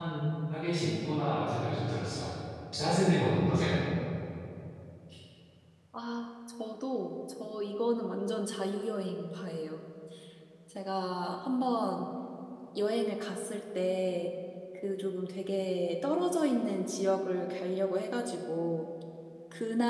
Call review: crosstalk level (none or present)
none